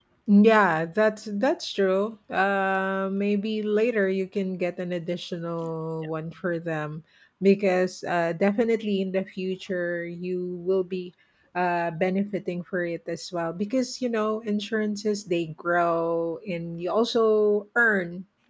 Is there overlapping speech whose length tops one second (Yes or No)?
No